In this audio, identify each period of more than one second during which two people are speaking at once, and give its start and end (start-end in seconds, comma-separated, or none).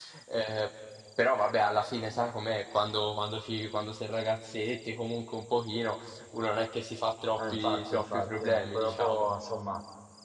7.3-9.2